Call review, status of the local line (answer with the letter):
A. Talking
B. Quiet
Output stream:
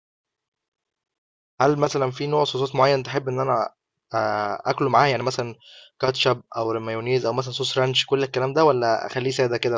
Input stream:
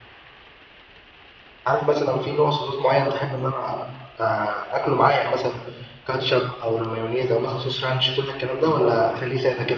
A